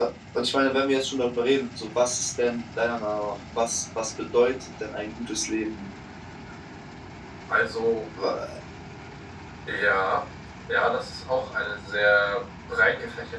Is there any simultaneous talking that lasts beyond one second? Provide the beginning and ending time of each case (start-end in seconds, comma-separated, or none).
none